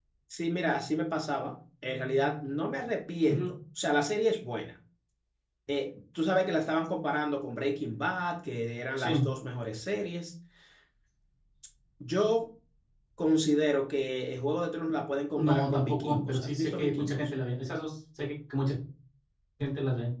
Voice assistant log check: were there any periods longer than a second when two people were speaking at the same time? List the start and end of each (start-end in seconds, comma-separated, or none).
15.3-17.3